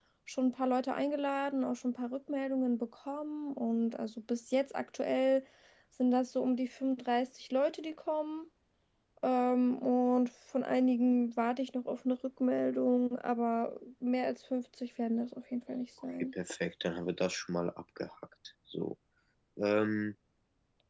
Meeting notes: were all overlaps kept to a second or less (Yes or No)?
Yes